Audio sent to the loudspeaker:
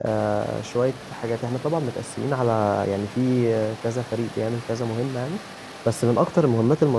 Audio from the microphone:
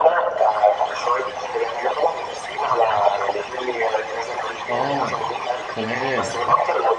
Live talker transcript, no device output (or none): اه تمام